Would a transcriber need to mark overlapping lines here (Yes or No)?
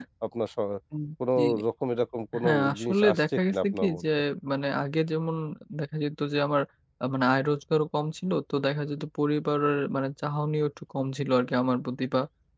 Yes